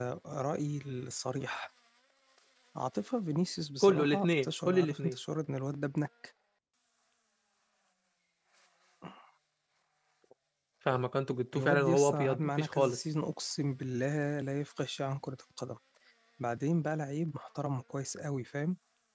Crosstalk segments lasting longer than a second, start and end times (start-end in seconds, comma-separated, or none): 3.8-5.2, 11.6-13.0